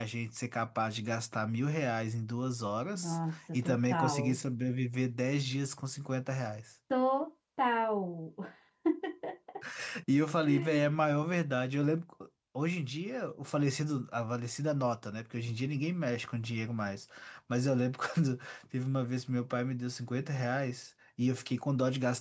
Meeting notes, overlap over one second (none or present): present